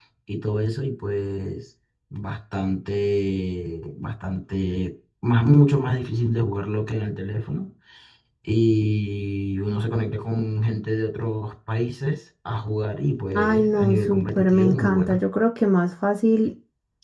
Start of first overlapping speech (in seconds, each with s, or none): 13.3 s